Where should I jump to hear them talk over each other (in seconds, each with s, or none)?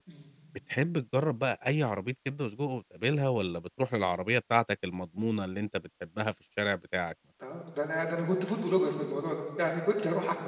none